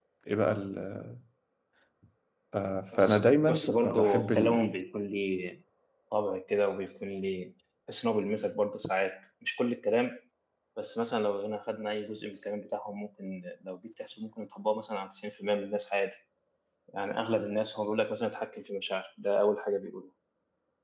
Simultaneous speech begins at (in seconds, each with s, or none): 3.0 s